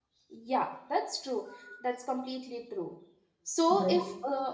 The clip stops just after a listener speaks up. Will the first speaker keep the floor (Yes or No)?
Yes